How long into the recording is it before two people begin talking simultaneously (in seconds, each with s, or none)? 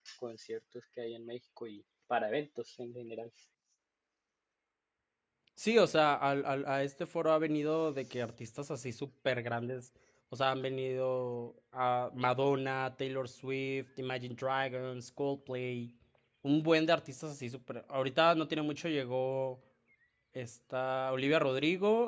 none